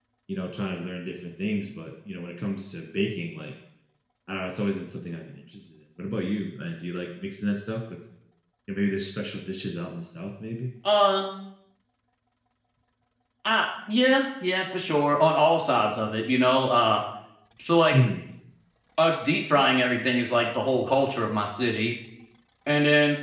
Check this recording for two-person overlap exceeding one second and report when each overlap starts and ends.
none

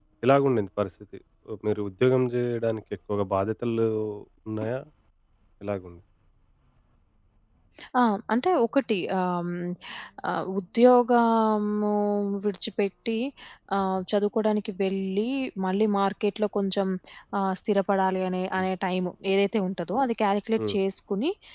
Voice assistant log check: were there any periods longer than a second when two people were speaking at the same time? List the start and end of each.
none

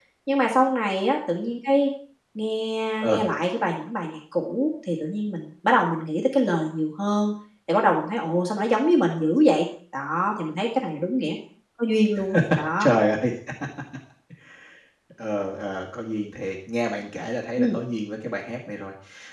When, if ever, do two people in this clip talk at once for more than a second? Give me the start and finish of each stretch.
none

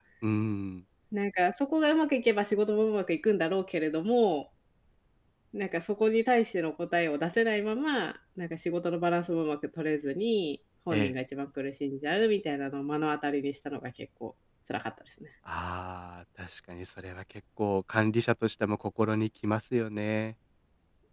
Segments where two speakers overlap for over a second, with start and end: none

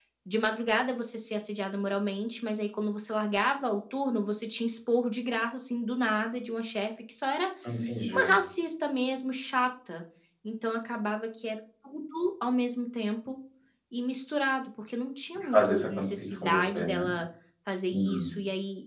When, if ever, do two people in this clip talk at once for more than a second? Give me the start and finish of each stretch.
15.5-17.0

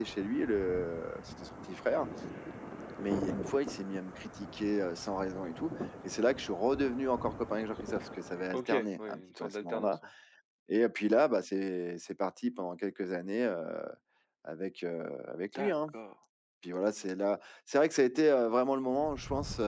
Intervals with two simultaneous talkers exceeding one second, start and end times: 8.5-9.9

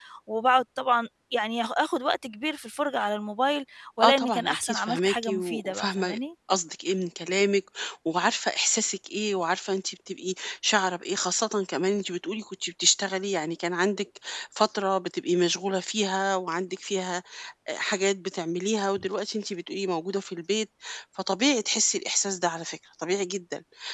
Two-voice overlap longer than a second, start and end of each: 4.0-6.2

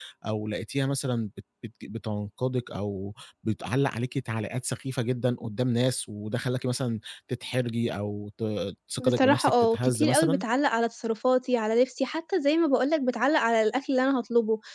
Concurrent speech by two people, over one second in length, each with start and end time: 9.0-10.4

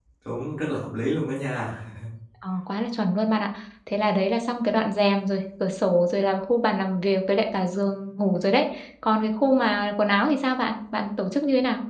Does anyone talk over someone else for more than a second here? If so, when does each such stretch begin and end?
none

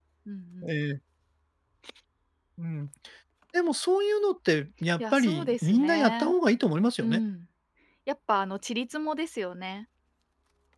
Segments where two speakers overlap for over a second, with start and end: 5.0-6.3

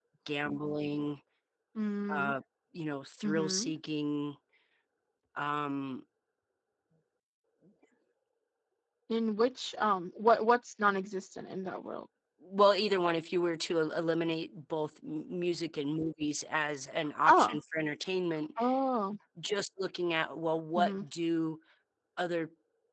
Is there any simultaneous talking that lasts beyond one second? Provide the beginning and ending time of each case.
none

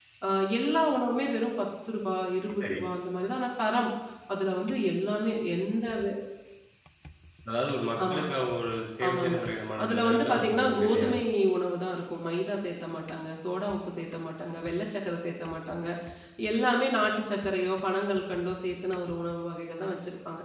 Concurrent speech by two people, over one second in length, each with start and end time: 9.8-11.1

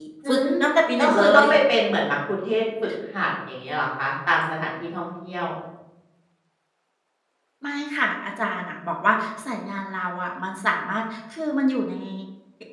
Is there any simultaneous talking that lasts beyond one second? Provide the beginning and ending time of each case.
none

